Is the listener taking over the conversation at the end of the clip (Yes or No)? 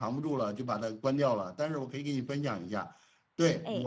No